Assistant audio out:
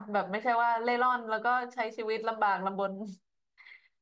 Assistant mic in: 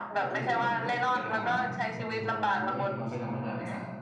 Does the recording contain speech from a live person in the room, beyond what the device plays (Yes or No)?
Yes